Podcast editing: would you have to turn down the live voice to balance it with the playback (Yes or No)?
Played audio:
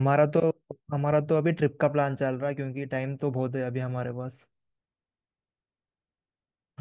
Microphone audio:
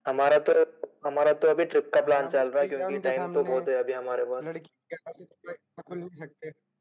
No